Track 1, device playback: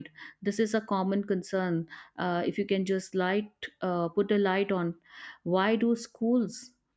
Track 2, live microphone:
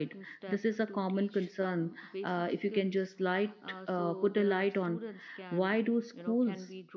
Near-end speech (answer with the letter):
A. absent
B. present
B